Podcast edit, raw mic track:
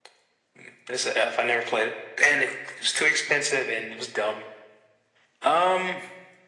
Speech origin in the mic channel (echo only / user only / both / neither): echo only